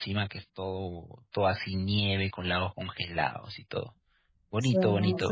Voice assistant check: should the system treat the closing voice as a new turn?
Yes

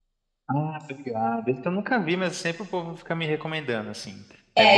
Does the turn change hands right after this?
Yes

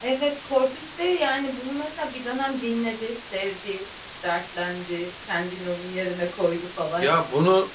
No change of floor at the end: No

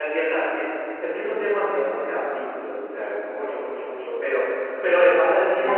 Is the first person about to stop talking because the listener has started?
Yes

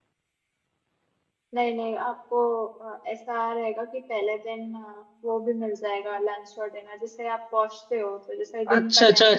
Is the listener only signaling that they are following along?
No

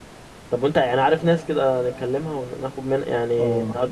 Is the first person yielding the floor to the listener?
Yes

